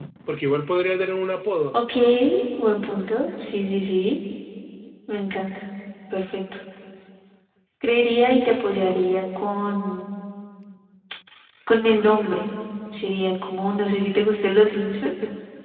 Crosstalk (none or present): none